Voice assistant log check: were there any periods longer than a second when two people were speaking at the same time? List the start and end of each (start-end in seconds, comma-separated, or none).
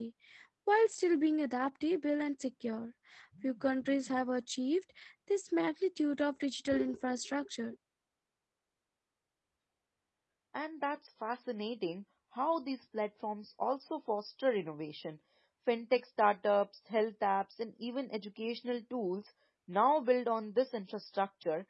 none